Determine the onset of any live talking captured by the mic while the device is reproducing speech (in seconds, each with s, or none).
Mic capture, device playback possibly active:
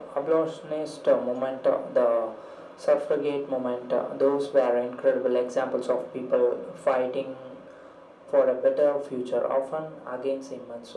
none